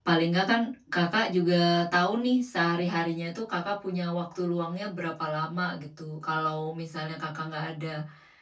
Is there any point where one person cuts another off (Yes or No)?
No